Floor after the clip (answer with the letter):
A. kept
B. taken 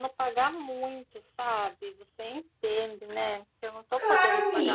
B